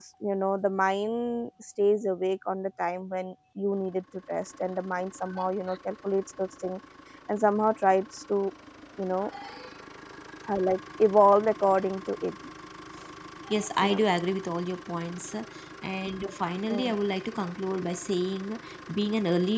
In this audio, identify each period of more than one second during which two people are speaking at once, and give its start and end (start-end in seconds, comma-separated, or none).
none